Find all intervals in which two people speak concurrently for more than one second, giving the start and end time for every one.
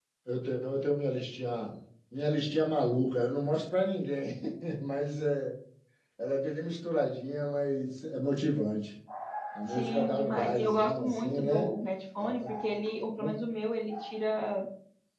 9.7-11.6

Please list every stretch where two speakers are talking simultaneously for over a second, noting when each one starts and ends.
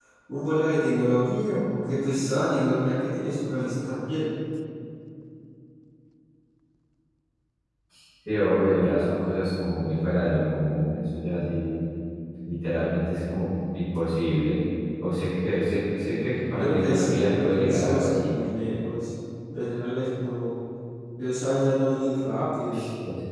16.5-18.3

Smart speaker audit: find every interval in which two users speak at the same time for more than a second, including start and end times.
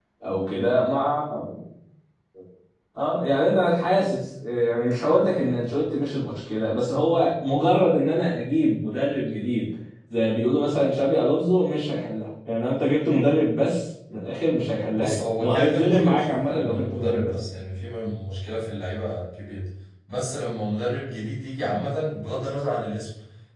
14.9-17.3

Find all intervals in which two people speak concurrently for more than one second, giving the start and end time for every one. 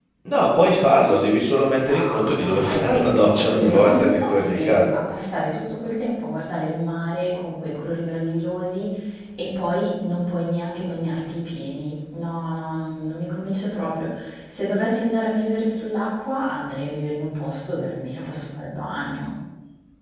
1.8-4.9

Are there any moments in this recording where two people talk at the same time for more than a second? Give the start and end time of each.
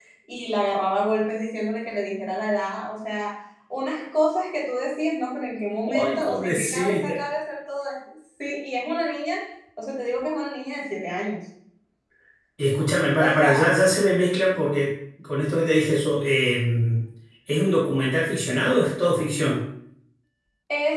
5.9-7.2

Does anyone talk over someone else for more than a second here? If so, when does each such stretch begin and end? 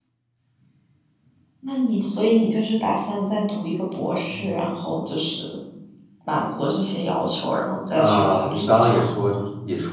7.9-9.4

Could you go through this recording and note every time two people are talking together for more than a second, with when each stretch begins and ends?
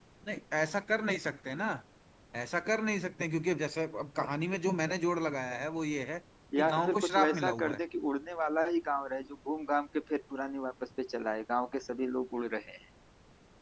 6.6-7.8

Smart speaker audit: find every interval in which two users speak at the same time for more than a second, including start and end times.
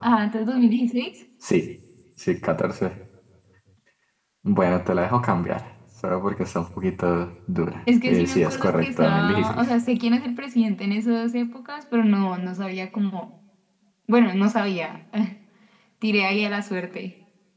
8.1-9.7

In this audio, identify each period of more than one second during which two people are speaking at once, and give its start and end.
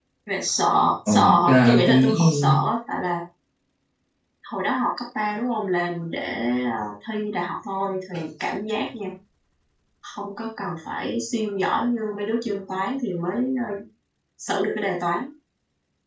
1.1-2.5

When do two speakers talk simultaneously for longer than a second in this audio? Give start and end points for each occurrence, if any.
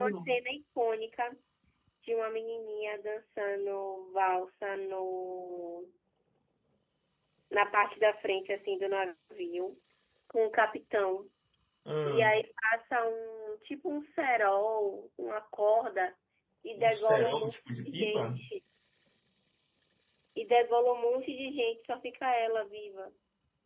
16.8-18.4

